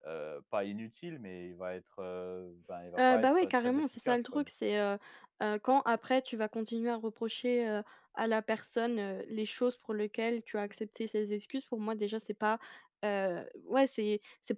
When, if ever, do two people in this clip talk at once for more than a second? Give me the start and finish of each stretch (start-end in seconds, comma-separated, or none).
3.0-4.5